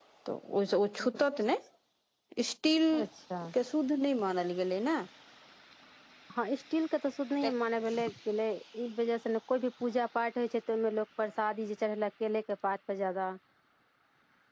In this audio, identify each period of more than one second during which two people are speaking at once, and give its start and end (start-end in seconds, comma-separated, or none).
none